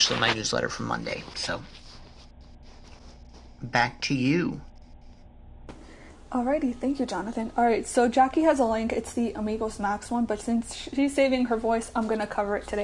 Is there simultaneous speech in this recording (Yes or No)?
No